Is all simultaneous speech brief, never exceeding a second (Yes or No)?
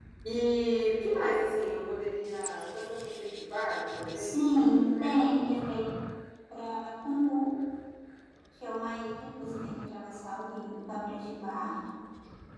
No